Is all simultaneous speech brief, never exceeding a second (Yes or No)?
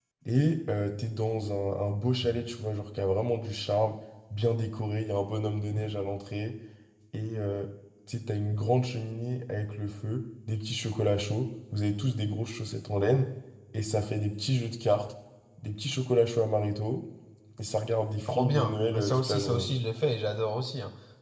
No